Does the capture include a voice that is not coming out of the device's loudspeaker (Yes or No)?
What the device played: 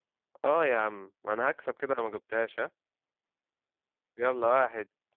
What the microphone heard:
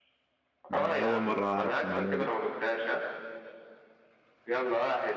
Yes